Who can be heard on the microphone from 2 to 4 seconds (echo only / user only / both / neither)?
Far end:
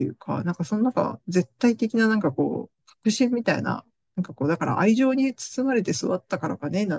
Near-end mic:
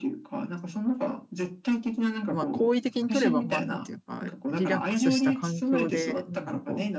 both